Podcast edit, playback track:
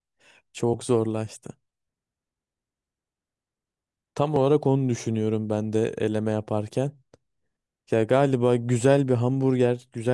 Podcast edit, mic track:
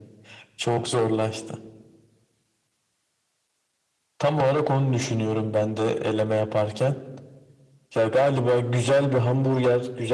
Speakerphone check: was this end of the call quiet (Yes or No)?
Yes